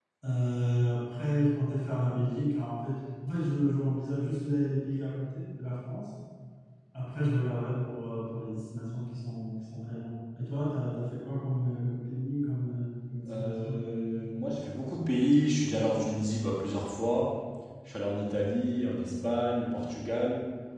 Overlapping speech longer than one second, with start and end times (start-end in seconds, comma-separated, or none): none